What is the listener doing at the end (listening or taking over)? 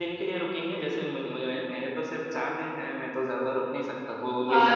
taking over